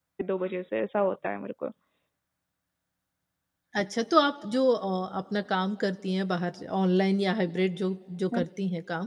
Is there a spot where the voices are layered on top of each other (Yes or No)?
No